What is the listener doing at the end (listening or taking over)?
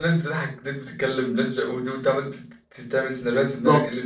taking over